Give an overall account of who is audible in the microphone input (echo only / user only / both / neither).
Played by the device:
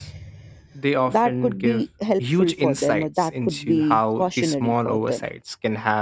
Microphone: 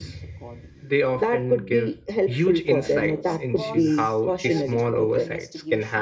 both